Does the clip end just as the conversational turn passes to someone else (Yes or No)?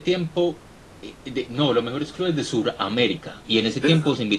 No